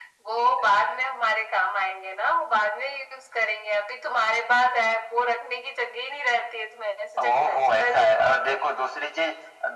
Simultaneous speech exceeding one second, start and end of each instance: 7.2-8.6

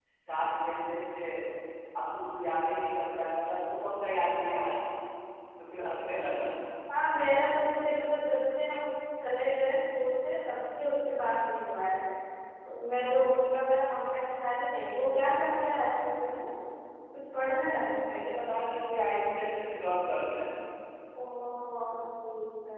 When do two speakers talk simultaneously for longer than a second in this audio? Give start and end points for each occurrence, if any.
none

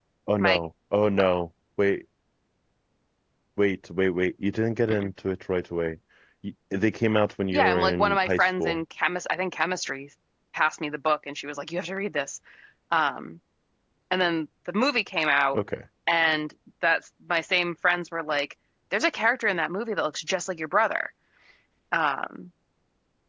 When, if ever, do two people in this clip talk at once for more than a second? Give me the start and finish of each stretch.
7.5-8.8

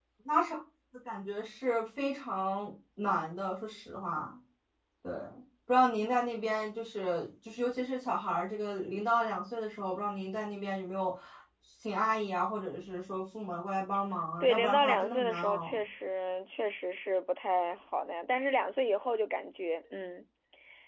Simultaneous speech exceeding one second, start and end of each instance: 14.4-15.8

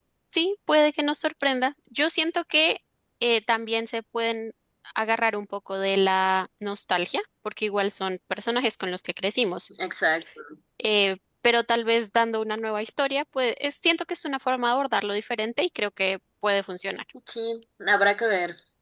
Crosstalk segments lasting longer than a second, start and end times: none

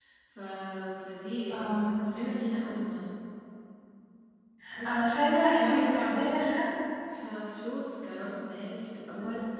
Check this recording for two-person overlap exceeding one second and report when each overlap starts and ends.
4.9-6.4

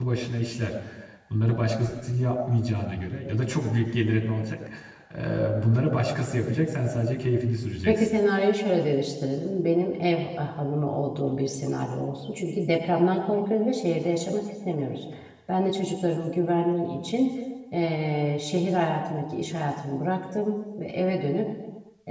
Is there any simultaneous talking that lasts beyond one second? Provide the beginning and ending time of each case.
none

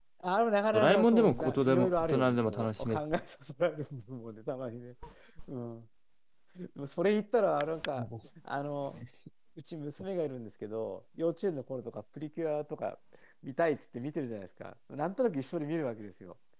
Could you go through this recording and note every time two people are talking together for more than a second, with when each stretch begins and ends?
0.7-3.0

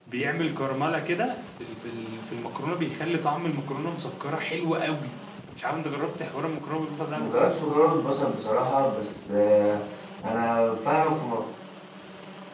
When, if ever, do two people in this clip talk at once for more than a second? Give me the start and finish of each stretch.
none

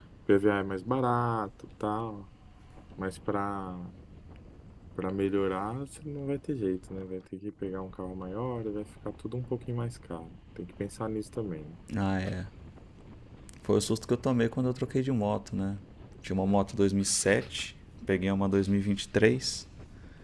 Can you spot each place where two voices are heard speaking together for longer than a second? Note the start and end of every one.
none

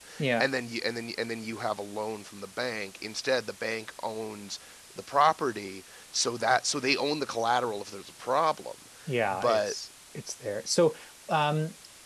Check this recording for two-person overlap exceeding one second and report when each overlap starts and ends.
none

